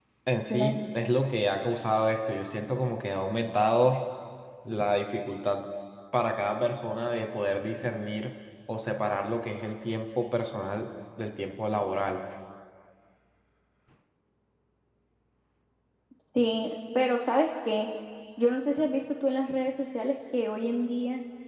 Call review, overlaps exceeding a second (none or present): none